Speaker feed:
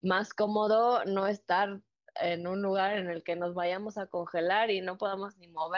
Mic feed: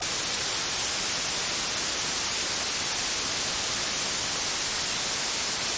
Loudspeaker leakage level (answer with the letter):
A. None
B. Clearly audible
A